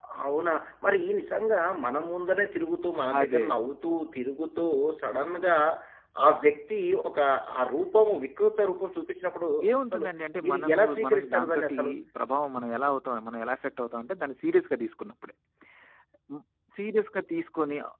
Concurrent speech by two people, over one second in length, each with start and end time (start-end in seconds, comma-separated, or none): 10.4-11.8